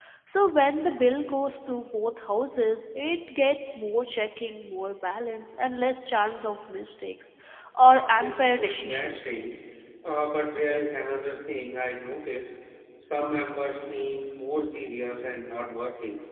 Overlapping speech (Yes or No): Yes